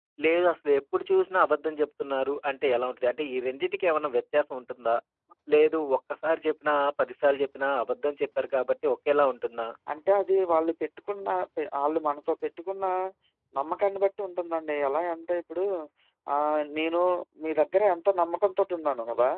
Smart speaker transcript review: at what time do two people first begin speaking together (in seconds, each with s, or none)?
none